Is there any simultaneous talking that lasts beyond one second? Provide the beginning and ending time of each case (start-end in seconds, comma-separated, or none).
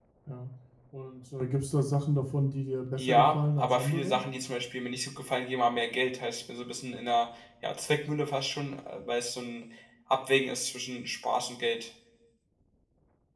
3.0-4.2